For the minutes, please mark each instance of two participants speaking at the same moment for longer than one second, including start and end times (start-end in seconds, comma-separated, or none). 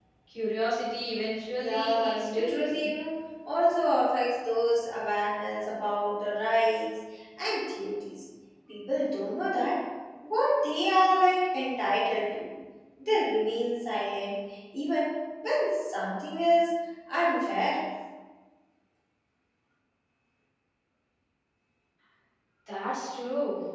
1.6-2.9